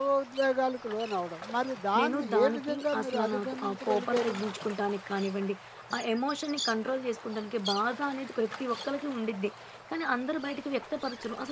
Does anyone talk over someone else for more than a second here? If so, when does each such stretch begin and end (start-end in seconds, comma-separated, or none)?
2.0-4.3